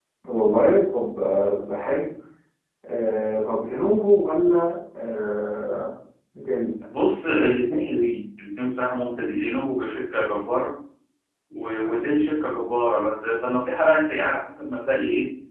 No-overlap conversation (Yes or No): Yes